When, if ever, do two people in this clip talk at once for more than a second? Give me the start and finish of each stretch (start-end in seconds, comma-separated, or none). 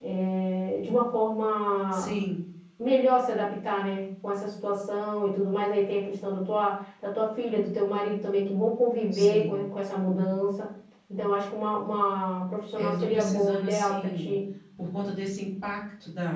12.8-14.3